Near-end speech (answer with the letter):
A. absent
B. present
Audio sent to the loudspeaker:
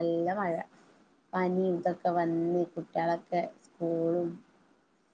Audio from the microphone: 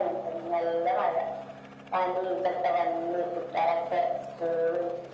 A